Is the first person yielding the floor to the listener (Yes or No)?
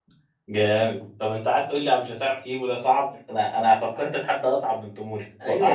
Yes